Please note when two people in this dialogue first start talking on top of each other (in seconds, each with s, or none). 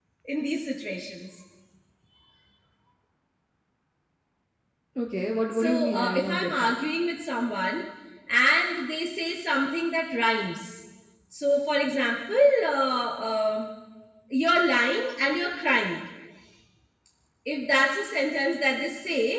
5.6 s